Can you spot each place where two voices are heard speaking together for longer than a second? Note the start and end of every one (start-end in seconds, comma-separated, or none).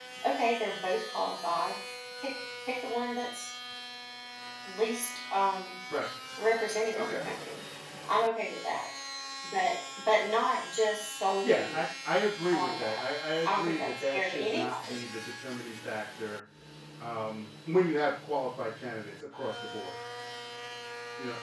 13.4-15.0